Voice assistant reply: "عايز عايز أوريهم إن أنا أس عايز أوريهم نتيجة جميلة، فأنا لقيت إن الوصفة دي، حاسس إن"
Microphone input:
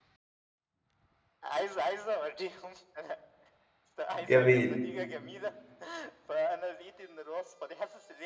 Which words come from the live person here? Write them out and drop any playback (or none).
جميل،